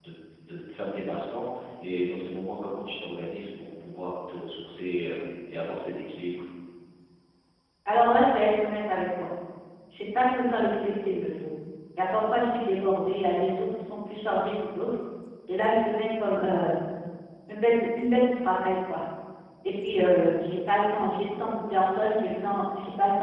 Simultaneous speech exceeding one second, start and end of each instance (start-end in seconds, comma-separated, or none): none